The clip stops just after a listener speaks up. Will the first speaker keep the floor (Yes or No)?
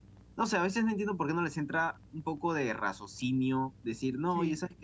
Yes